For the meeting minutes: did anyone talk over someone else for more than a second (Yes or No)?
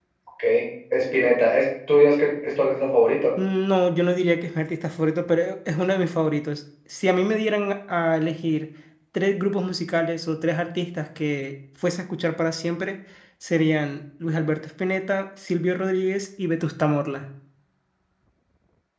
No